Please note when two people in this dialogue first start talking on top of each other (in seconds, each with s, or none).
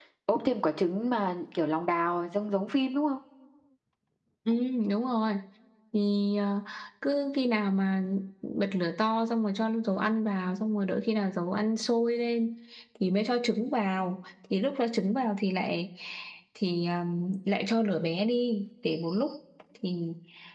none